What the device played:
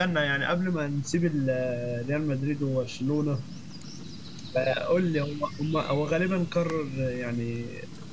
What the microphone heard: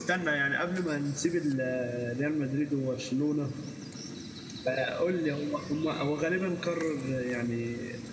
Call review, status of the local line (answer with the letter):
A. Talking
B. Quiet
B